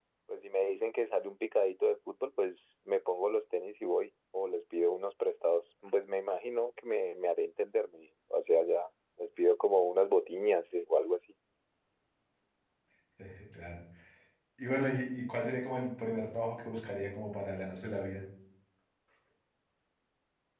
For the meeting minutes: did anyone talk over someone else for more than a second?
No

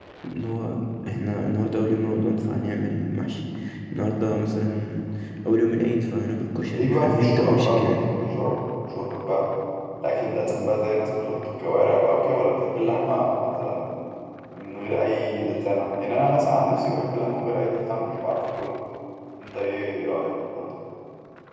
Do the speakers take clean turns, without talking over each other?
No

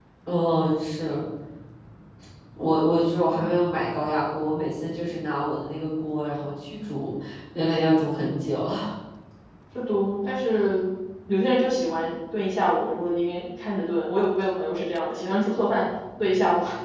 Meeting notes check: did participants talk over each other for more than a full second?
No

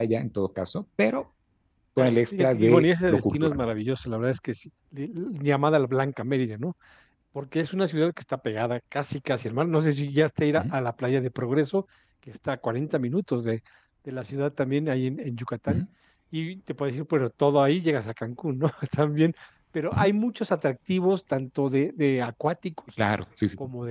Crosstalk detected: Yes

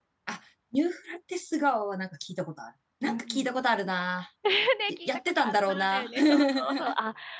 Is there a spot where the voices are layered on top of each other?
Yes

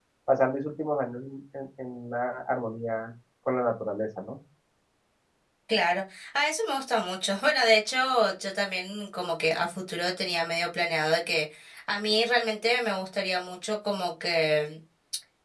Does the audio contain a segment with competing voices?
No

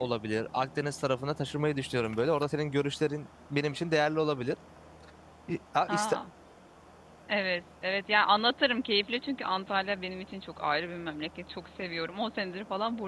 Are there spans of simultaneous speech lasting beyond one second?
No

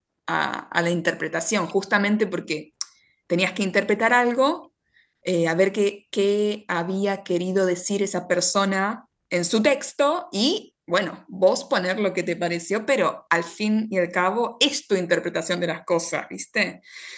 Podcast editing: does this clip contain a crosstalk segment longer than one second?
No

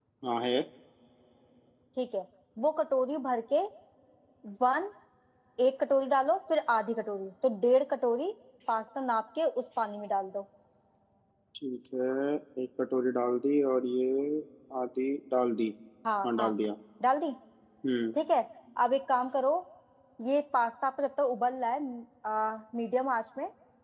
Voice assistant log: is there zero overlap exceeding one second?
Yes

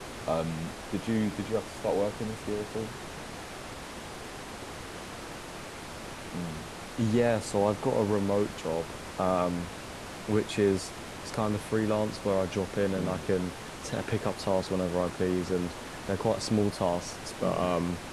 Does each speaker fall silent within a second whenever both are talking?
Yes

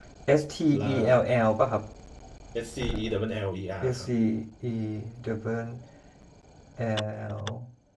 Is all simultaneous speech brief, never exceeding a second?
Yes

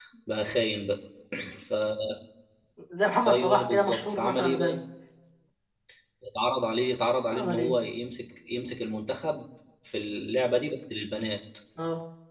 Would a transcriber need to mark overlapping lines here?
Yes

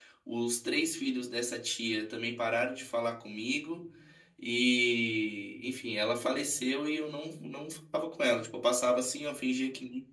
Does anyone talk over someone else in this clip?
No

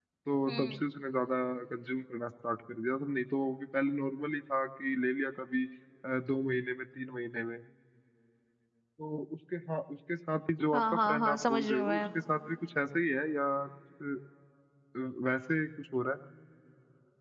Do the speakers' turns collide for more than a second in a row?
Yes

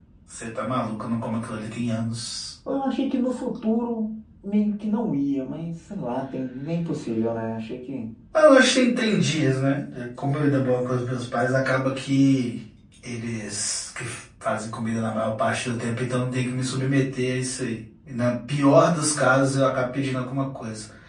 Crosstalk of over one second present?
No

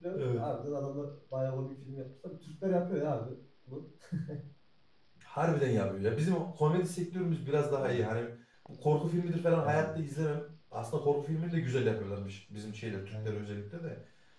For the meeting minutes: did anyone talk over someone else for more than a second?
No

